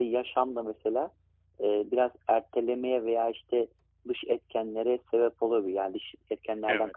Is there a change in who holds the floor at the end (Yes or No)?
No